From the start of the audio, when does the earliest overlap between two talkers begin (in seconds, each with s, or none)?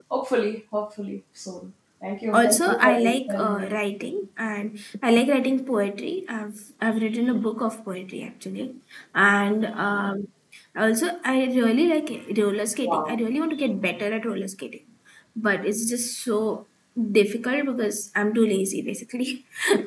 2.3 s